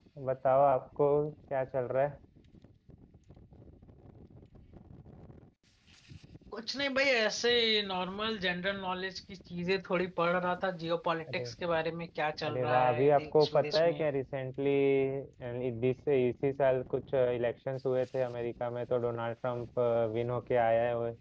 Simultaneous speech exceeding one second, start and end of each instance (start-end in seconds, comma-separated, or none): 12.5-14.0